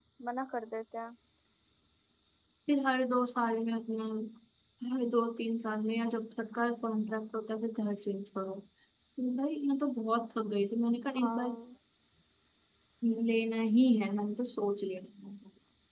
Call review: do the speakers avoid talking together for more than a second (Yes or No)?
Yes